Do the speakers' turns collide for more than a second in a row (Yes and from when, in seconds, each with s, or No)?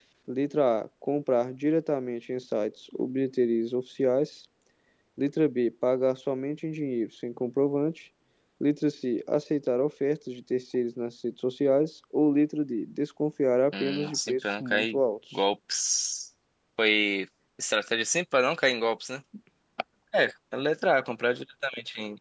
Yes, from 13.7 s